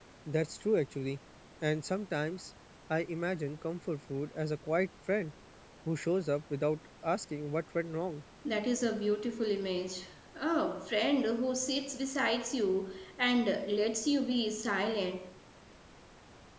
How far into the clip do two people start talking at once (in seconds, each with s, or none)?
none